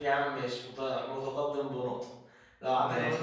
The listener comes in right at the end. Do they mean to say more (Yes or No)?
No